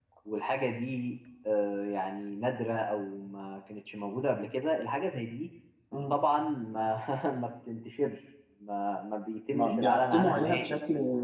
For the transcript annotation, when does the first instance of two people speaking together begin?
9.5 s

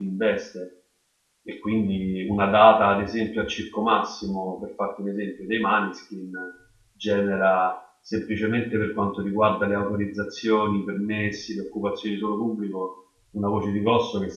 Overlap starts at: none

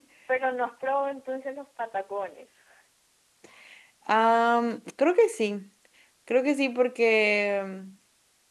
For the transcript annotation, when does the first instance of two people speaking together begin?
none

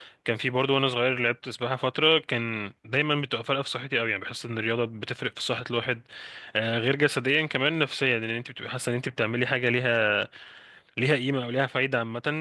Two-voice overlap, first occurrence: none

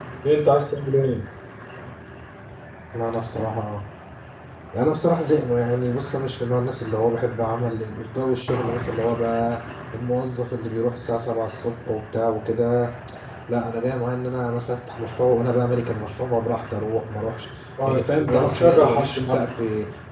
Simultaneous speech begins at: 17.8 s

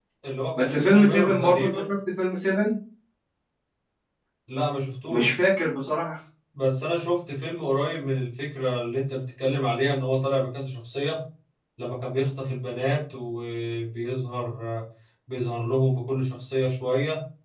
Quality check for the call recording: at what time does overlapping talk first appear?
0.6 s

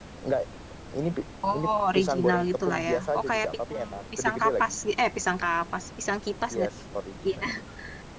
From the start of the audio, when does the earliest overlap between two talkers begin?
1.5 s

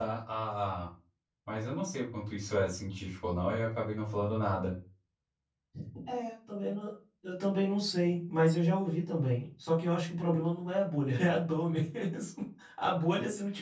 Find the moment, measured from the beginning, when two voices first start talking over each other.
none

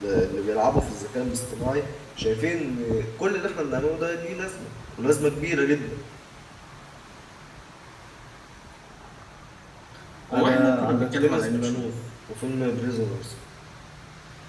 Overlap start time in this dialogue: 10.3 s

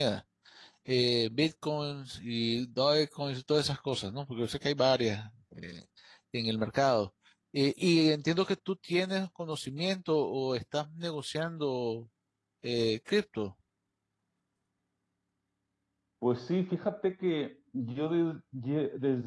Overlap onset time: none

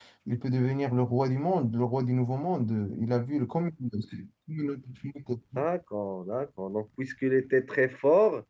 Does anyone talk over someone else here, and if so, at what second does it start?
none

